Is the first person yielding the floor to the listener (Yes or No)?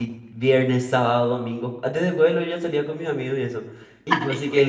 No